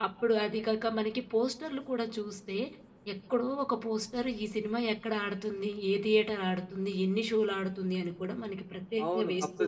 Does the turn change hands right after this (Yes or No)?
Yes